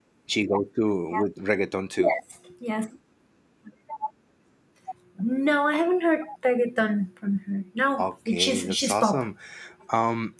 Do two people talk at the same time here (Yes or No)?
Yes